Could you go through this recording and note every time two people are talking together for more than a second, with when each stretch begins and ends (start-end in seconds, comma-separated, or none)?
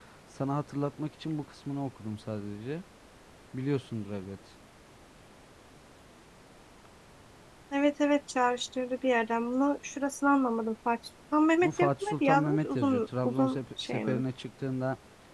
11.6-14.2